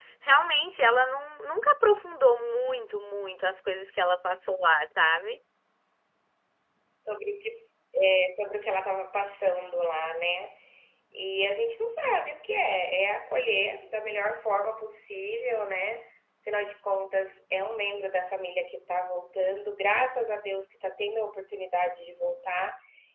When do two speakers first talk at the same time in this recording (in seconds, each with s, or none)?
none